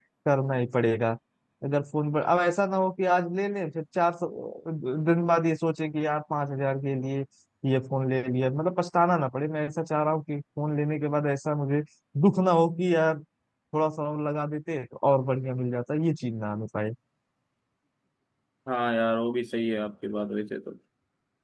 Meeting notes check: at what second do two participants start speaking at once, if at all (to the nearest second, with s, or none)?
none